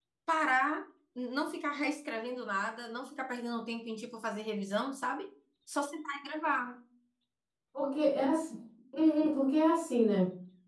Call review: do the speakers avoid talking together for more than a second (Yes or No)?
Yes